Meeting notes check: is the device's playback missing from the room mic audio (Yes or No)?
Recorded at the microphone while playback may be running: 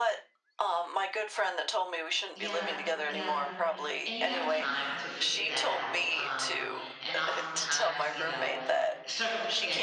No